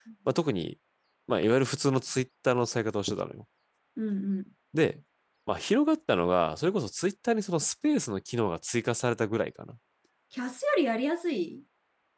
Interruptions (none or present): none